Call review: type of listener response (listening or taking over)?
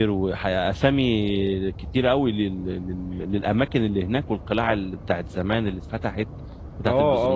taking over